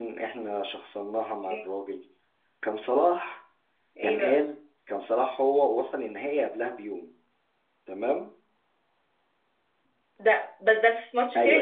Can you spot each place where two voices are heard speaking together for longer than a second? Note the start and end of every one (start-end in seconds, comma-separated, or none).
none